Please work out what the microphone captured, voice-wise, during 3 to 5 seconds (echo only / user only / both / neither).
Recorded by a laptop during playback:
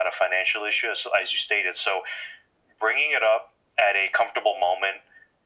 echo only